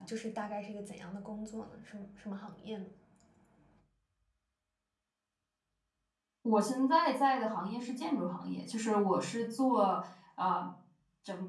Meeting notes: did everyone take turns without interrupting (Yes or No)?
Yes